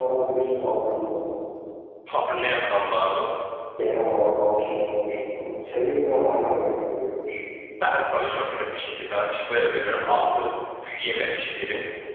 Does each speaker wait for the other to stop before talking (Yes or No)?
Yes